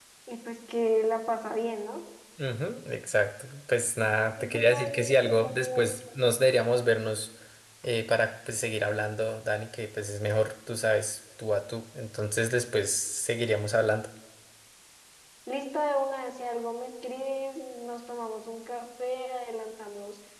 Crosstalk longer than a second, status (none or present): present